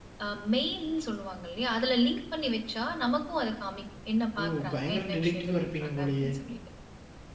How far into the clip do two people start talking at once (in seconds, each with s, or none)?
4.4 s